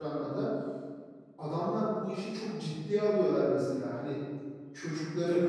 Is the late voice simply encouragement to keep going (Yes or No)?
No